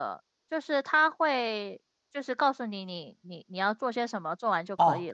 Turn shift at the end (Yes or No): Yes